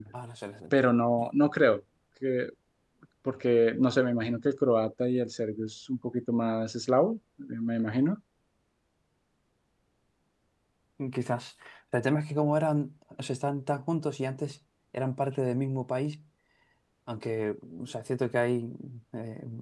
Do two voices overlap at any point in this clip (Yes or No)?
No